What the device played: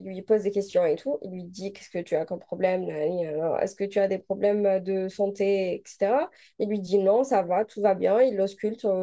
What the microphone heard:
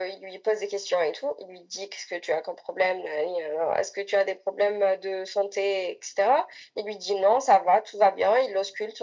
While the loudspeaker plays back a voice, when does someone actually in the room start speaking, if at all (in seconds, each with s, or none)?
none